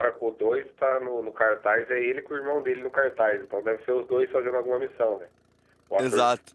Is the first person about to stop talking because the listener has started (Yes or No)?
No